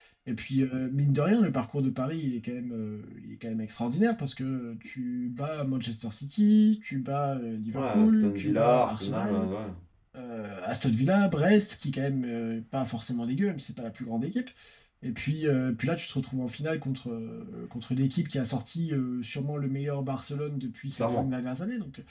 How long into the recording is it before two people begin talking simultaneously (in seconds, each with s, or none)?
7.7 s